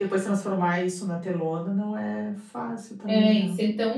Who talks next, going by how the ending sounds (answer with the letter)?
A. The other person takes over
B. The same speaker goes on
A